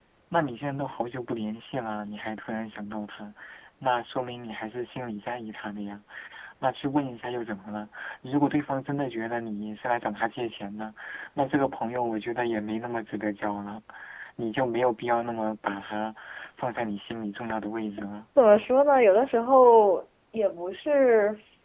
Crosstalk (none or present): none